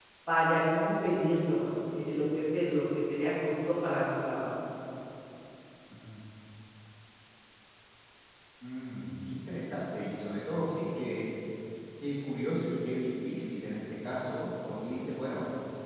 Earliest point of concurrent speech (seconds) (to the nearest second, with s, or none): none